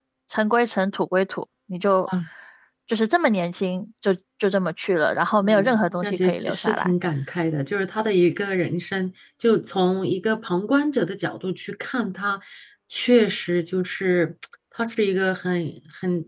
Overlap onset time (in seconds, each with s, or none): 5.4 s